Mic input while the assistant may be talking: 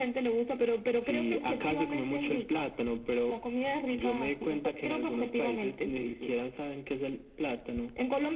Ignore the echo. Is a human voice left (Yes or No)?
No